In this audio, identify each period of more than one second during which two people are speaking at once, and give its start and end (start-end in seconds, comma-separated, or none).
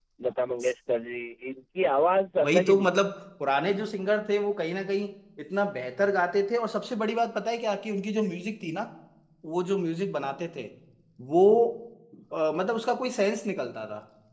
none